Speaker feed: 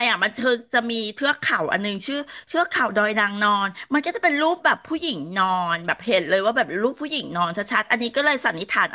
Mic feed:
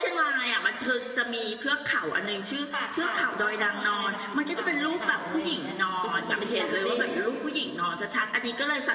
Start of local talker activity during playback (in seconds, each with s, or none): 2.7 s